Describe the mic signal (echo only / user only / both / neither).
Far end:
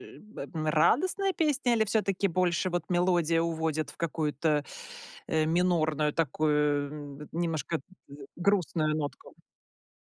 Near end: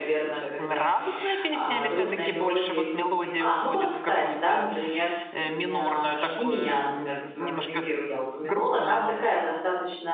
both